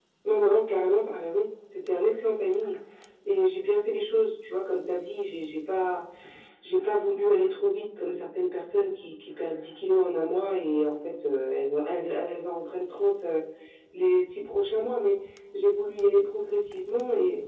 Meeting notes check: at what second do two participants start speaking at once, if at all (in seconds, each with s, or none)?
none